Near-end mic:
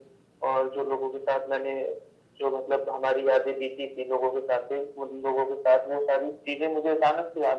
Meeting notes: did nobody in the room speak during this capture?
Yes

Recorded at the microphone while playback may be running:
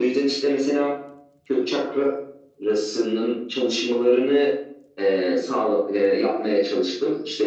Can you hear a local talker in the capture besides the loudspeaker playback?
No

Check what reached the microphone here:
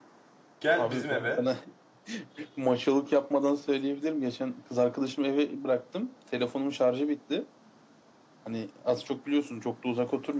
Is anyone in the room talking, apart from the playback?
Yes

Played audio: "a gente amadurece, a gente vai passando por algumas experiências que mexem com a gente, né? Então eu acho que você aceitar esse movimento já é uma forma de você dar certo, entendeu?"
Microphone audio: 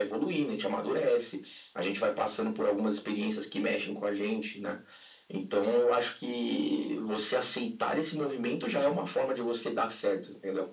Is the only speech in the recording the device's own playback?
Yes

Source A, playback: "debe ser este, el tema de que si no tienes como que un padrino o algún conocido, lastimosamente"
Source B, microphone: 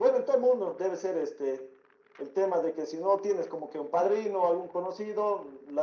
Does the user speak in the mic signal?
No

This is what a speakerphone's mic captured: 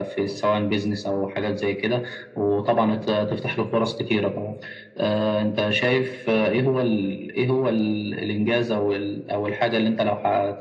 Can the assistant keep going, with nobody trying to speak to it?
Yes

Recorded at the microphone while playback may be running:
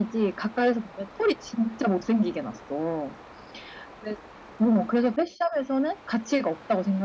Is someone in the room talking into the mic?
No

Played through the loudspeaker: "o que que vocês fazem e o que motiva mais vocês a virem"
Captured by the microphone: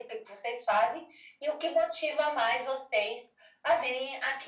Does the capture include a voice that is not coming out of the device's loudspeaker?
No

